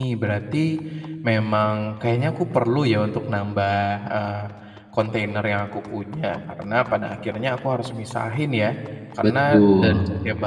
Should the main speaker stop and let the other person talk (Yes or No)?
No